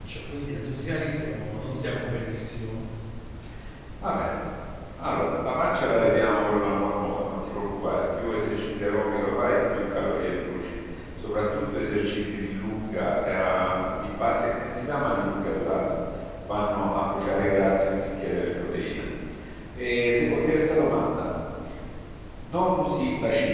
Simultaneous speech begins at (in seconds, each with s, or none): none